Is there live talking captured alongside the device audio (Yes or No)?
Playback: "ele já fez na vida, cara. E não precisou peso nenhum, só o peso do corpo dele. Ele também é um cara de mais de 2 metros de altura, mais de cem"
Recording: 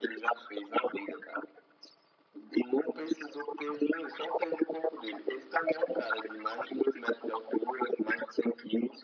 No